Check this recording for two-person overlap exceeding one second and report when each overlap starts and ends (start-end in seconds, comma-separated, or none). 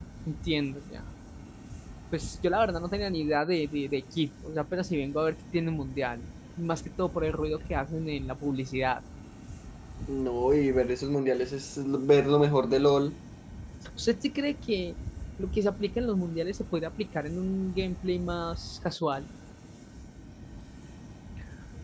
none